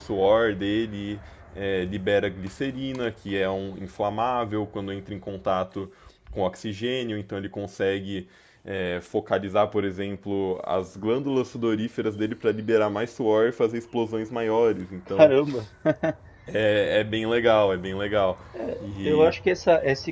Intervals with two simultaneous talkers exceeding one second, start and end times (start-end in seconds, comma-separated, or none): none